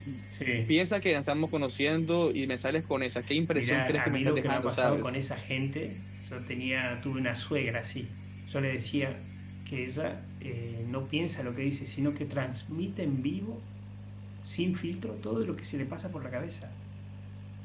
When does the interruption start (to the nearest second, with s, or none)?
4 s